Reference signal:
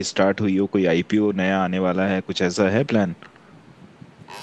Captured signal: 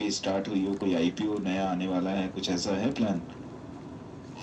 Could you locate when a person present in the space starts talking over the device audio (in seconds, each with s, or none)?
none